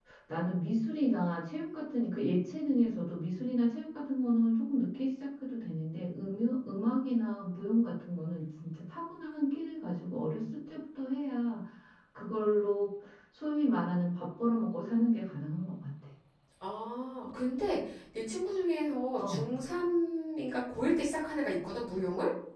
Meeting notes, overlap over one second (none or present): none